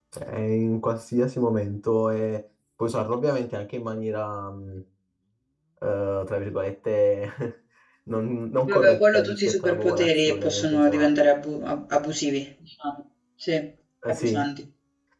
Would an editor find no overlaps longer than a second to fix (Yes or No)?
No